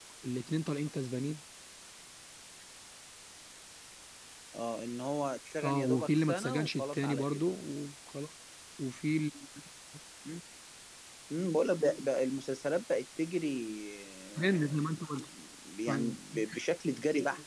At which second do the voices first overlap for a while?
5.6 s

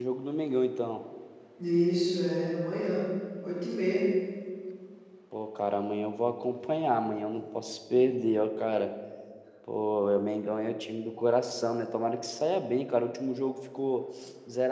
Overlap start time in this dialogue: none

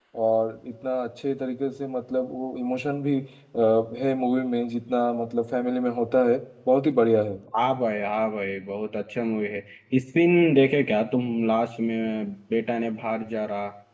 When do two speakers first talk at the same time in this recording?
none

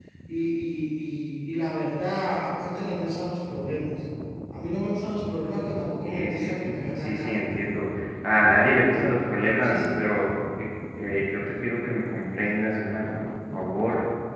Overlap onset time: 6.0 s

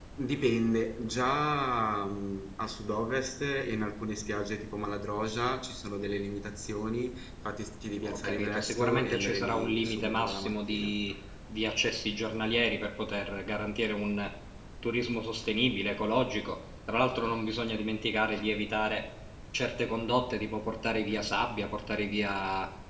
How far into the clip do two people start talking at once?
8.0 s

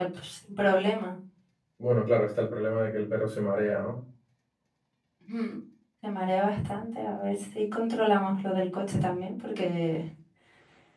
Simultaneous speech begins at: none

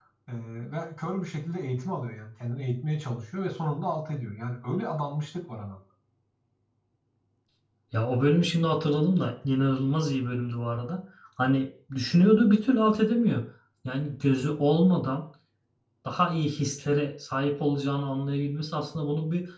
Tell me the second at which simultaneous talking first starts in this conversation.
none

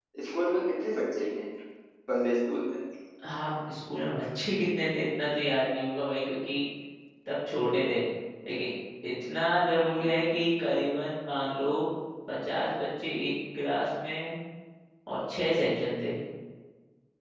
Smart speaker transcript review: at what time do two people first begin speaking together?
none

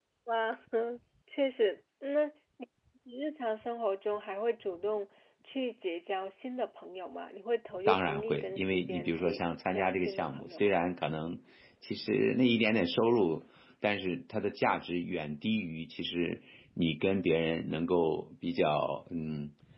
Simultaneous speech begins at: 7.9 s

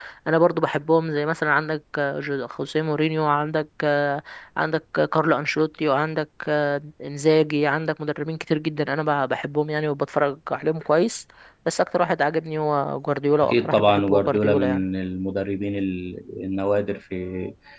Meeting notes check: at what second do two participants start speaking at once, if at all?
13.4 s

